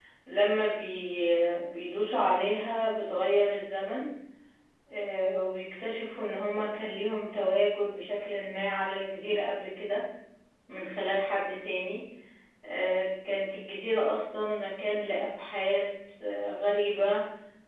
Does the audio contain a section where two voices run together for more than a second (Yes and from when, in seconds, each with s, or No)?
No